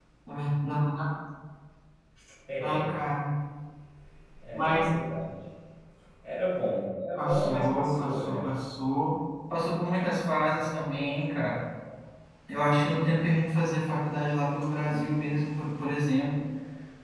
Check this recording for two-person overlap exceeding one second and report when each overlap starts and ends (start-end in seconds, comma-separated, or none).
7.2-8.4